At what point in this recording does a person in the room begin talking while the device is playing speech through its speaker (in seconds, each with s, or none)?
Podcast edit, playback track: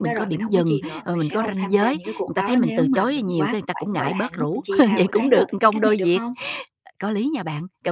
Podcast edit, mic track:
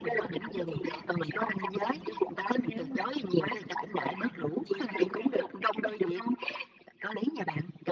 none